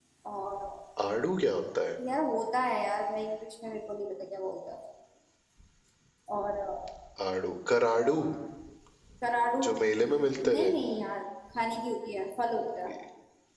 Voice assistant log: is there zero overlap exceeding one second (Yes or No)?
Yes